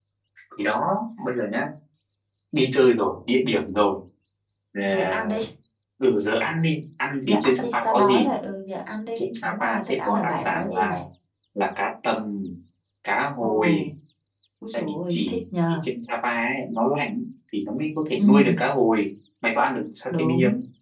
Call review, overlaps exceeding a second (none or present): present